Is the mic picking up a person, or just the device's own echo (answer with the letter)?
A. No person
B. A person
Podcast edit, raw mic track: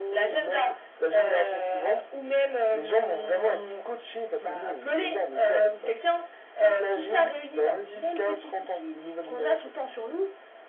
A